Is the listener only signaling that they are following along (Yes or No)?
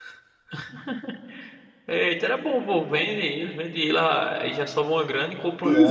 No